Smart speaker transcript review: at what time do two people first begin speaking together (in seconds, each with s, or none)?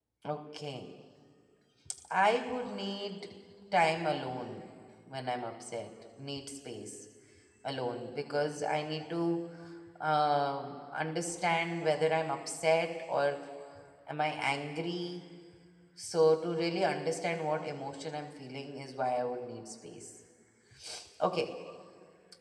none